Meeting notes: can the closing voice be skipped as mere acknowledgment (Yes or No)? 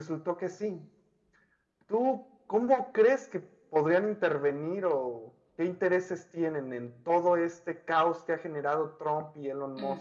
No